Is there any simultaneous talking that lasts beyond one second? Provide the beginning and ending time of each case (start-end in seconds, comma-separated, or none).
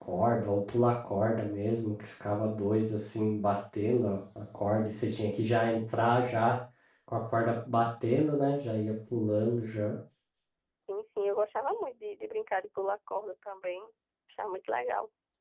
none